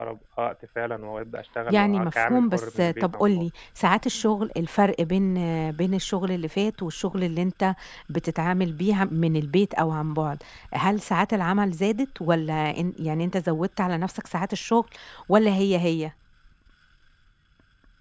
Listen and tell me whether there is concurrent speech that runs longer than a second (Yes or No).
Yes